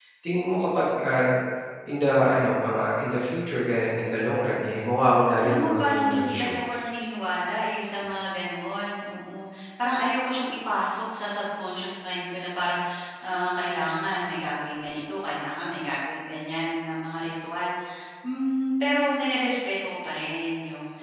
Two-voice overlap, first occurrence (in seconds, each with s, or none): 5.4 s